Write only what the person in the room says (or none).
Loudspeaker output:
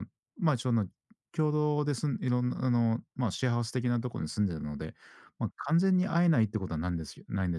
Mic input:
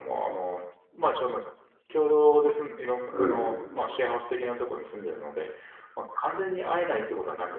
うん。